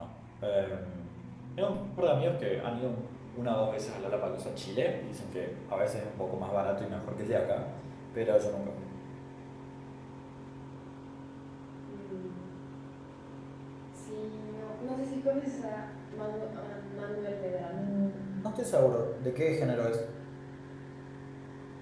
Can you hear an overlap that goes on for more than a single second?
No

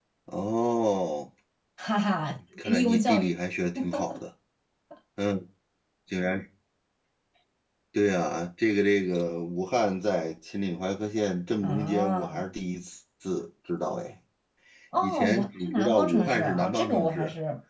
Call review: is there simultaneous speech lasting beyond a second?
Yes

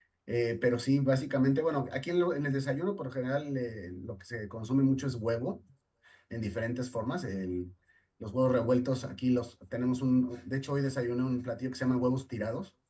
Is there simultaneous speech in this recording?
No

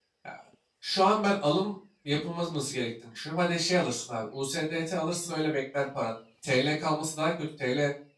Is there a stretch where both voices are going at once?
No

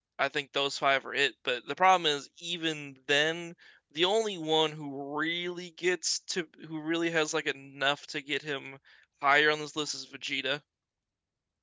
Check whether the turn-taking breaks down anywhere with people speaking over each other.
No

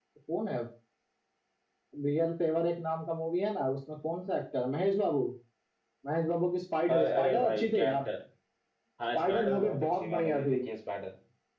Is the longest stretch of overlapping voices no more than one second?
No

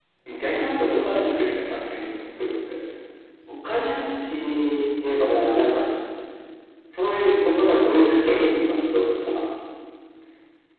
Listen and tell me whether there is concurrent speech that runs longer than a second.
No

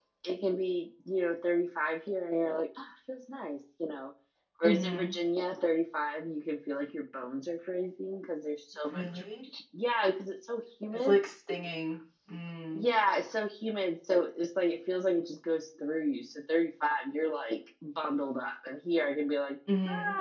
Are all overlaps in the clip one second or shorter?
Yes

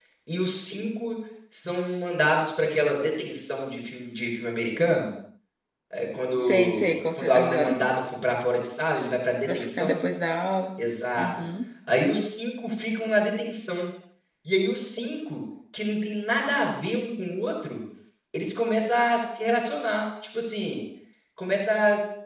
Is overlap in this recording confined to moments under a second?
No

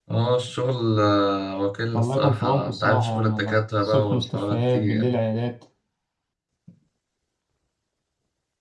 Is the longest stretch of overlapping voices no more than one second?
No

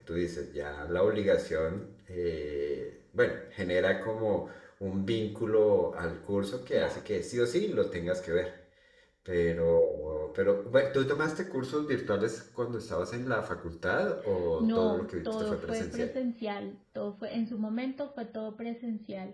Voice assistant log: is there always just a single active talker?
No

